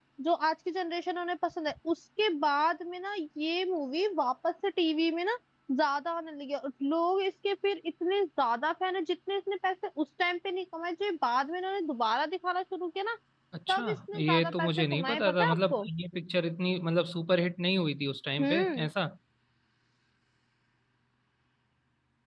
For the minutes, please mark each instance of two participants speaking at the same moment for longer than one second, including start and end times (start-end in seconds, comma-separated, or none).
13.7-15.8